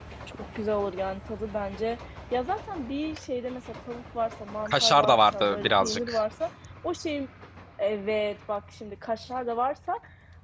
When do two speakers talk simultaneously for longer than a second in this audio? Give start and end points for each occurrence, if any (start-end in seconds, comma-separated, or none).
4.7-6.2